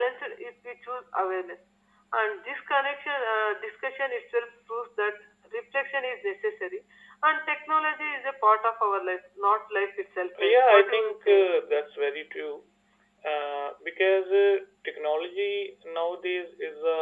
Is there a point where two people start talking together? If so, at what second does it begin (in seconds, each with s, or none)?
10.4 s